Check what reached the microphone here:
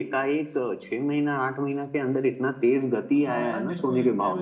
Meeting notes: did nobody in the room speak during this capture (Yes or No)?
No